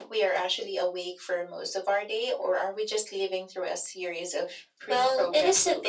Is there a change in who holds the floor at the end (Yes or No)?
Yes